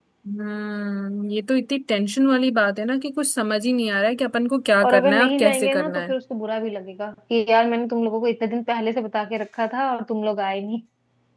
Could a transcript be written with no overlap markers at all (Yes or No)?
No